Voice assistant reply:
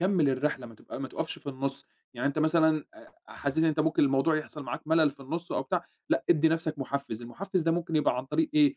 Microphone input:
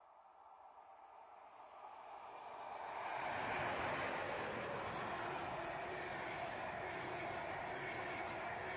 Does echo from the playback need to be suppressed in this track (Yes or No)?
No